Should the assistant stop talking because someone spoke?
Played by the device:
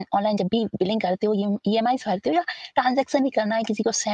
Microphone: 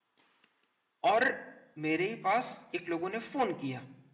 Yes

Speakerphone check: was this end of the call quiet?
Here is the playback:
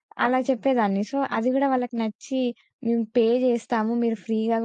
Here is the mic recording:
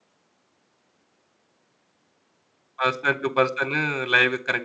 No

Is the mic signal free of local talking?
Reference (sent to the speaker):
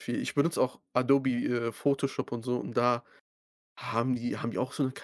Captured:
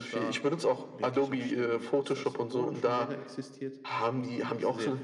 No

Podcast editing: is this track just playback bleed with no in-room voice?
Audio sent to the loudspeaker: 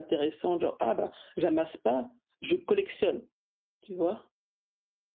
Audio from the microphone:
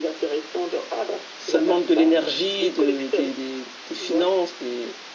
No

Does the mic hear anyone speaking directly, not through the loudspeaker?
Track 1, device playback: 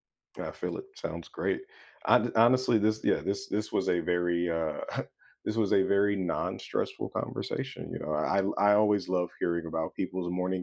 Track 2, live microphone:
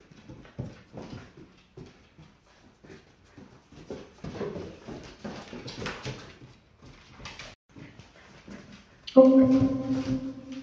Yes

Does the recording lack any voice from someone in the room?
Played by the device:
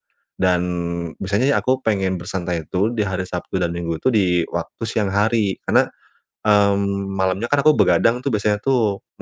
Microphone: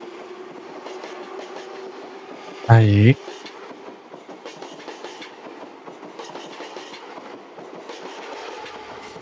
No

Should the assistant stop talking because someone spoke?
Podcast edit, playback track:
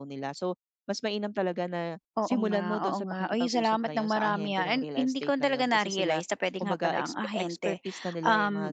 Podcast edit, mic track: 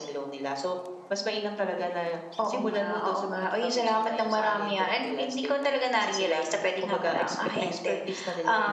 No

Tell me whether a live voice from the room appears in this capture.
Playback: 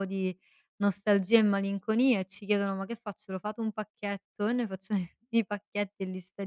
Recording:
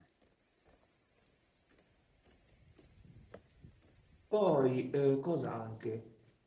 Yes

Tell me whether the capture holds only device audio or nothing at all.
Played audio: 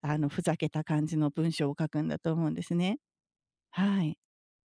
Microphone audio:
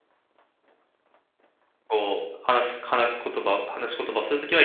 No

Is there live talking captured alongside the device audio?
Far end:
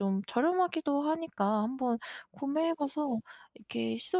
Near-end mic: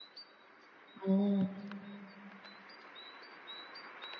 Yes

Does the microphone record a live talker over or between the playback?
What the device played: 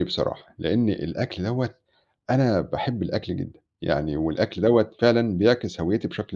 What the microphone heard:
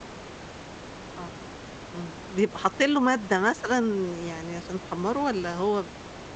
Yes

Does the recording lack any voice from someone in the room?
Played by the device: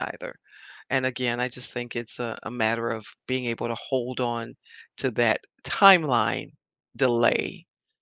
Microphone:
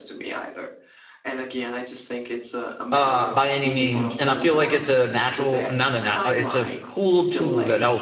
No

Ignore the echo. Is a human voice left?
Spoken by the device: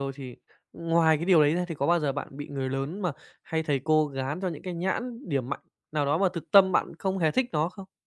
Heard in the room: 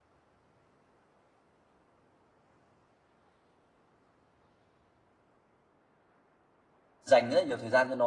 Yes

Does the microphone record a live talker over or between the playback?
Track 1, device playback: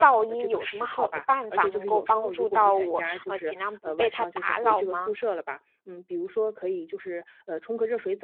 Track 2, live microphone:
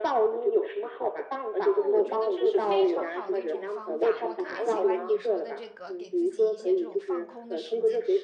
Yes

